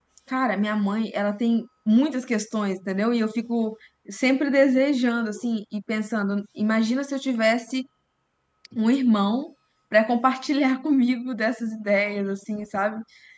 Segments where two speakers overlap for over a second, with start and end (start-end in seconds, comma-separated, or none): none